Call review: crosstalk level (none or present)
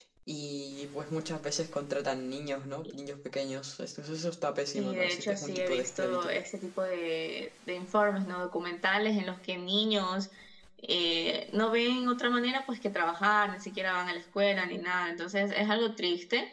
present